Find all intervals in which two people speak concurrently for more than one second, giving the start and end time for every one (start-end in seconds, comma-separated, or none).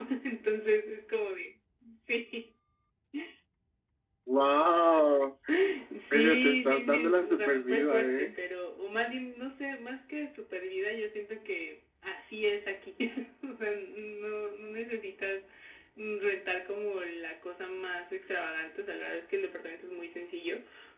6.1-8.3